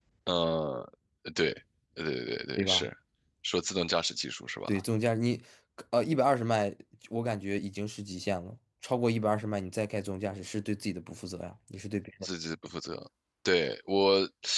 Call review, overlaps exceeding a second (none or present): none